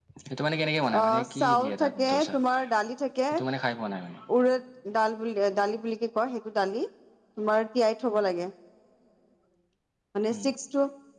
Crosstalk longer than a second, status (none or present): present